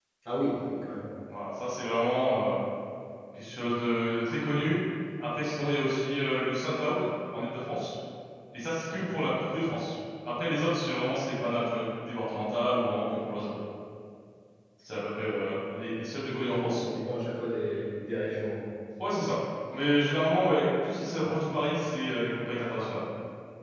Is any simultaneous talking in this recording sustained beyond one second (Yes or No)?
No